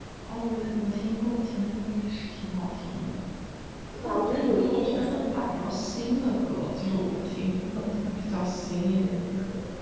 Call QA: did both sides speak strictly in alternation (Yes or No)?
No